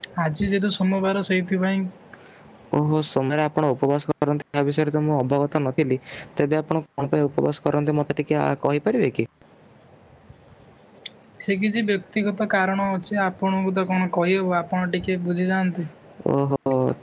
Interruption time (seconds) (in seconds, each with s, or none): none